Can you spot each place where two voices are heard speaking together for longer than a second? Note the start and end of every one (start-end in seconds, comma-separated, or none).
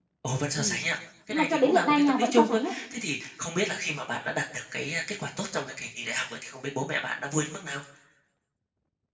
1.3-2.7